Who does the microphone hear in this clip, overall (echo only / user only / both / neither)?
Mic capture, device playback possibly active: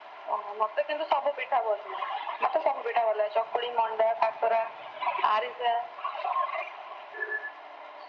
echo only